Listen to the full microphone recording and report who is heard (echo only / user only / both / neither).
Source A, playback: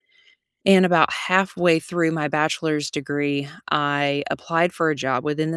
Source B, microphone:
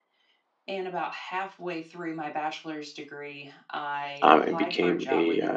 both